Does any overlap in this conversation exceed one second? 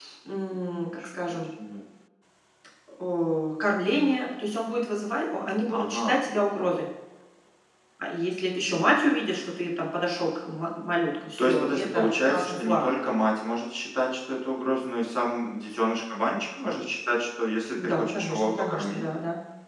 Yes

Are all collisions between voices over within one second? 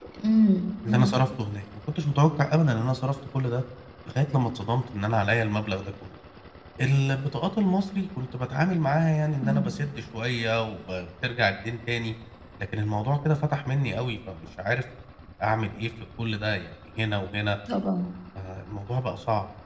Yes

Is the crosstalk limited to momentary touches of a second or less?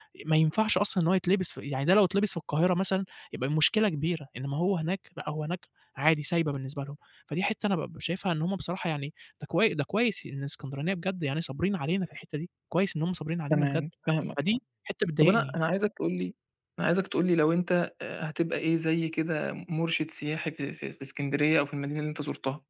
Yes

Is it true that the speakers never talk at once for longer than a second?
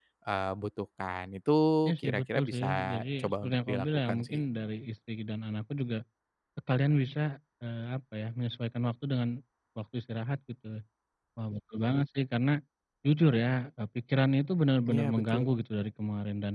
No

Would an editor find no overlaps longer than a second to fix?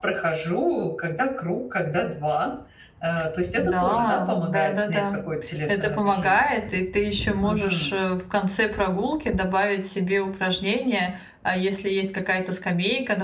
No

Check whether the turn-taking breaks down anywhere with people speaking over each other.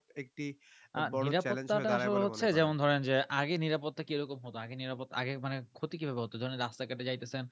Yes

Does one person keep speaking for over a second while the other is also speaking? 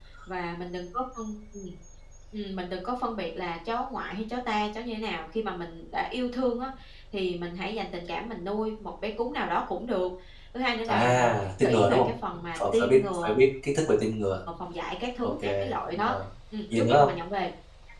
Yes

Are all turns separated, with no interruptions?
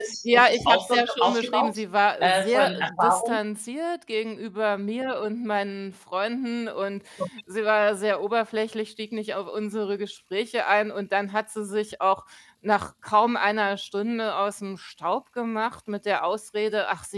No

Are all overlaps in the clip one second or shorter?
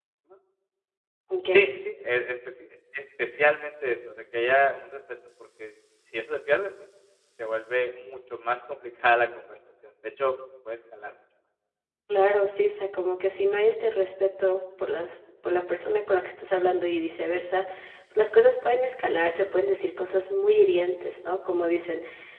Yes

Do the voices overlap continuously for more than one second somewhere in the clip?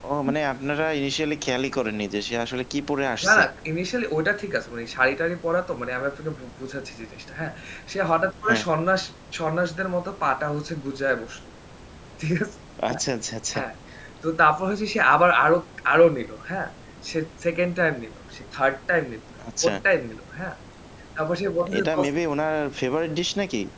No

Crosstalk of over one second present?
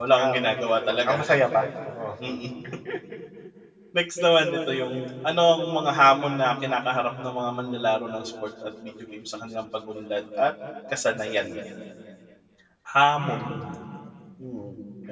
No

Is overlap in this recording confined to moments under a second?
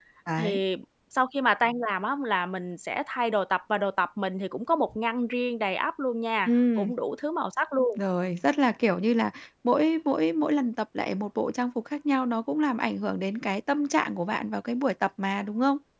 Yes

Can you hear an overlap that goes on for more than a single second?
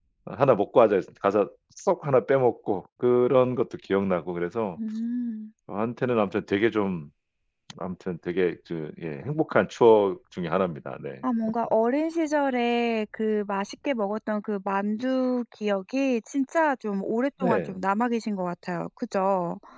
No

